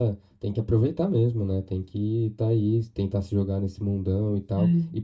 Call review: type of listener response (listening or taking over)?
listening